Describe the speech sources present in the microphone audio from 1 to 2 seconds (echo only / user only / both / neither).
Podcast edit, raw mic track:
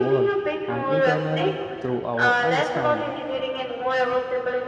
both